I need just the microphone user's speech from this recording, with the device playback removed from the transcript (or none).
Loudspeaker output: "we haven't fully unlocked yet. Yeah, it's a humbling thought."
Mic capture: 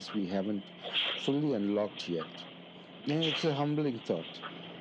none